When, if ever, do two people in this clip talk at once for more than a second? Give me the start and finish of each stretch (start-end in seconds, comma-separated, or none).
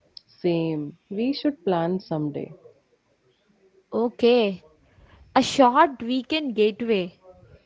none